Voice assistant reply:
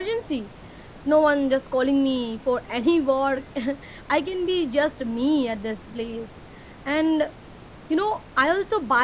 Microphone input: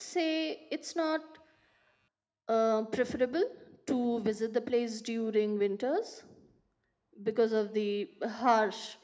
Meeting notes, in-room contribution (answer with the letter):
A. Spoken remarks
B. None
A